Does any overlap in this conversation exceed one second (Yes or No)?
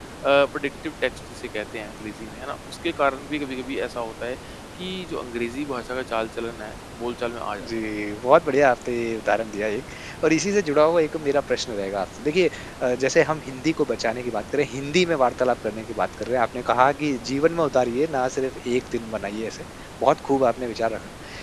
No